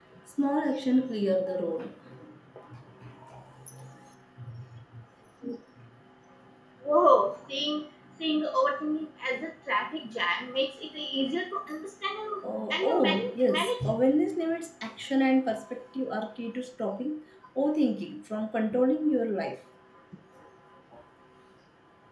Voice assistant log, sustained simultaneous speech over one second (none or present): present